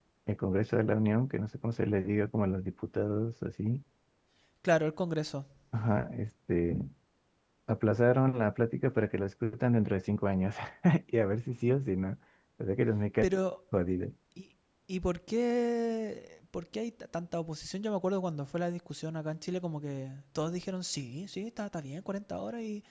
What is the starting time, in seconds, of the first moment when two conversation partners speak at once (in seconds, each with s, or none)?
none